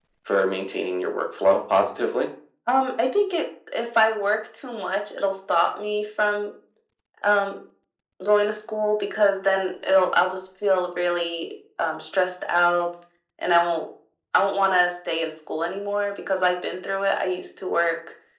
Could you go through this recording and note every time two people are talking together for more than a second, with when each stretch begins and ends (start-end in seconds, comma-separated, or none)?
none